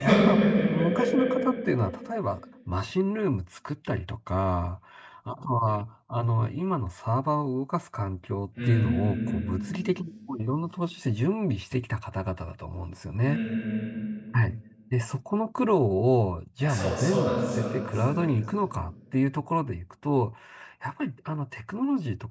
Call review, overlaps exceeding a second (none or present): present